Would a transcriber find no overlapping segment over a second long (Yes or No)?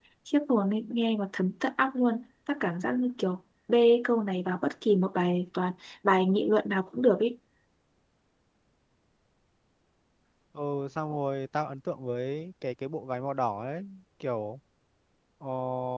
Yes